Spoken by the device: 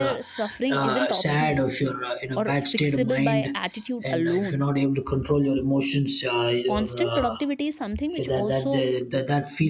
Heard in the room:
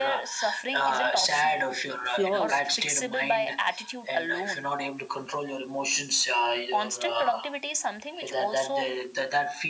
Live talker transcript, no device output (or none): flaws